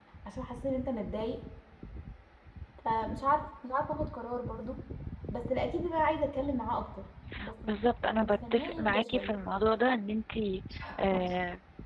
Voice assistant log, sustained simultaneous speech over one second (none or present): present